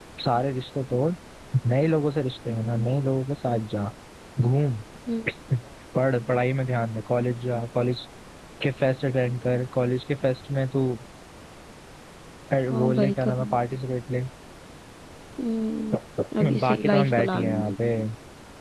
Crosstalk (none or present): present